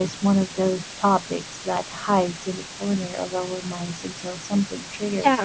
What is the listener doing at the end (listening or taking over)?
taking over